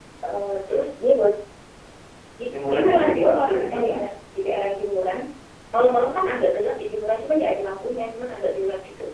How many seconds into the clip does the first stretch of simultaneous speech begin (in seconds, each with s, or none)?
2.5 s